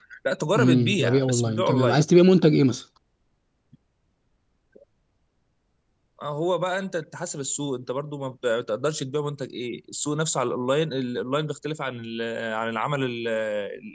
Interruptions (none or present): present